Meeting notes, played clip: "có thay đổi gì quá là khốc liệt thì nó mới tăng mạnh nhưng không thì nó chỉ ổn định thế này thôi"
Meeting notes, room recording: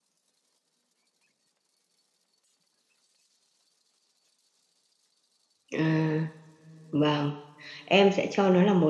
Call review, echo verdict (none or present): none